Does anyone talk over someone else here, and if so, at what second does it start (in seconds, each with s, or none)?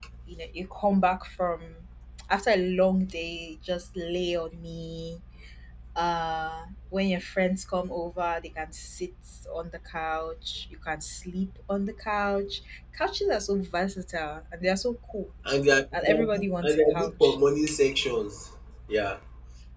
15.9 s